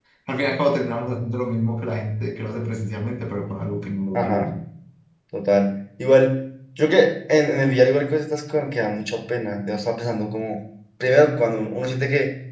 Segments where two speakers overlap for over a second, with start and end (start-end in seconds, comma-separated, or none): none